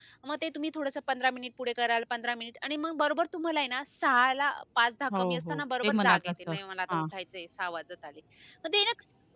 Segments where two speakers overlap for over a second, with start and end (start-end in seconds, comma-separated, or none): 5.2-6.5